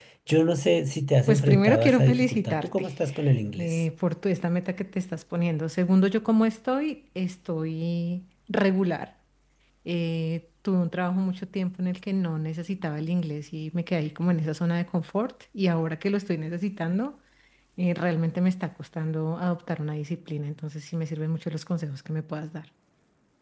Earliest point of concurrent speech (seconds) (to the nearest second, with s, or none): 1 s